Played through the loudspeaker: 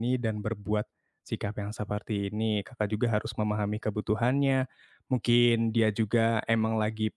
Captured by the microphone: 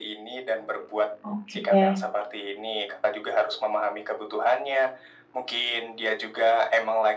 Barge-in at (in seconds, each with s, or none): 1.3 s